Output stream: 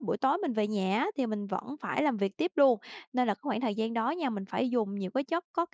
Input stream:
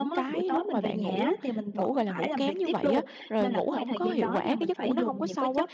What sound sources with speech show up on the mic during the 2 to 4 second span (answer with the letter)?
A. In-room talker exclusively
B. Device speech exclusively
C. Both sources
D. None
C